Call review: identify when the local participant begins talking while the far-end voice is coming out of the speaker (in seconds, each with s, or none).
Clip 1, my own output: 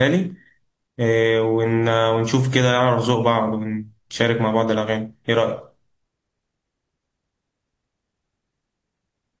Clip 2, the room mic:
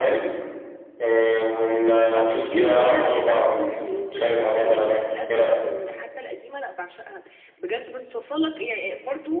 2.1 s